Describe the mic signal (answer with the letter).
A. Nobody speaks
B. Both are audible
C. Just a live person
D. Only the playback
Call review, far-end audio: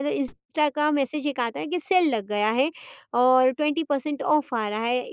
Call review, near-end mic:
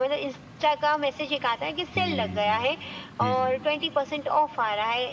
B